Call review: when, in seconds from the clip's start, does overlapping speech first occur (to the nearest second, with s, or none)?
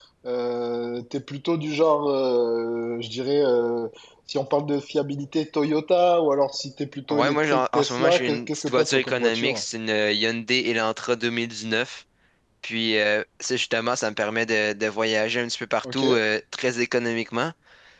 7 s